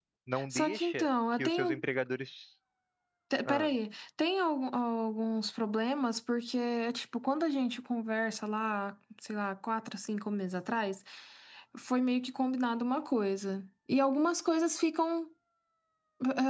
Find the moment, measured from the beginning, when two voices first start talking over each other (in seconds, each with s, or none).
0.5 s